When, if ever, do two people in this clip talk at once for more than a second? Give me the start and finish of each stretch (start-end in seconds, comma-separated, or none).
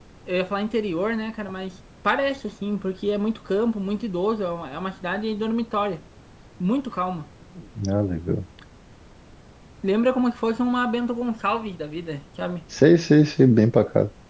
none